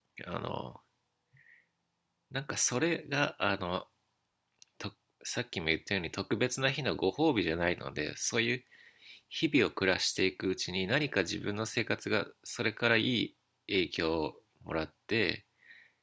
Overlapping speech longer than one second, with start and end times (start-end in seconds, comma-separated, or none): none